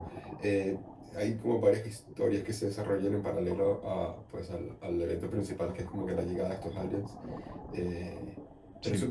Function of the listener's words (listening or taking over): listening